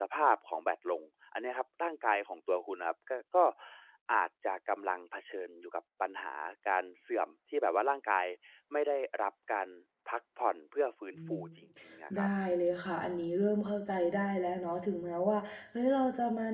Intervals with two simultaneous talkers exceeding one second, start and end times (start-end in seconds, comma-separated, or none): none